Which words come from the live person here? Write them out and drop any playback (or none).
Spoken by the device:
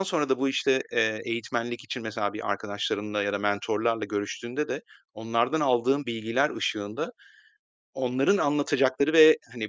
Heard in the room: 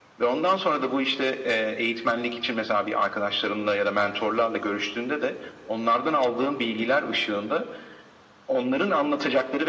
none